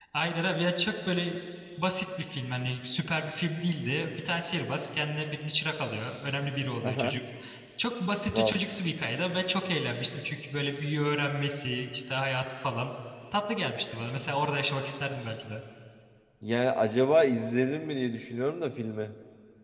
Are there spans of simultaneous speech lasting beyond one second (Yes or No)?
No